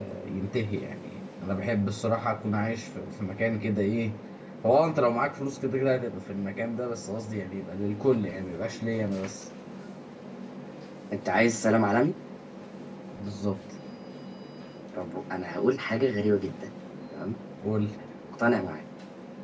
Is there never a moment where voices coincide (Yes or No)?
Yes